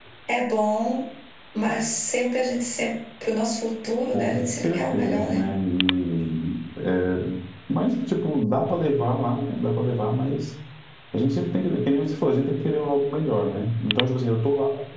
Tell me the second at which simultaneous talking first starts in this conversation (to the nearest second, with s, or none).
4 s